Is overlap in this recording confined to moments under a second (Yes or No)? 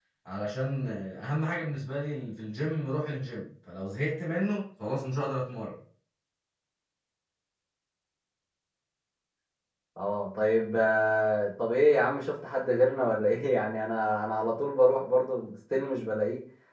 Yes